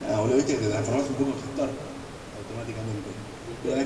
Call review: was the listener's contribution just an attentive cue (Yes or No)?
Yes